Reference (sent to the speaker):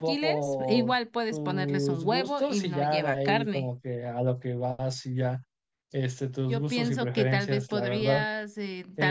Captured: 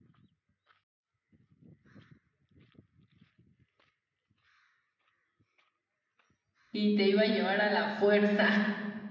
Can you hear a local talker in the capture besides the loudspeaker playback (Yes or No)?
Yes